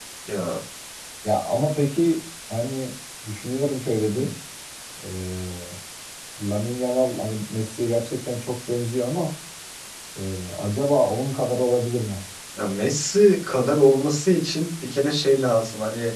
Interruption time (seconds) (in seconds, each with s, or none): none